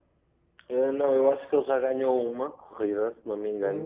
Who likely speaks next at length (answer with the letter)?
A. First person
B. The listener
A